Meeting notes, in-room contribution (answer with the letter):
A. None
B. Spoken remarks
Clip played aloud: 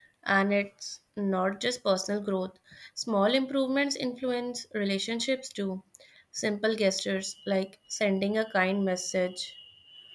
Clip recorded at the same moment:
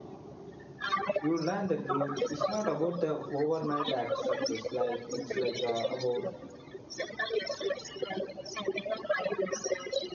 B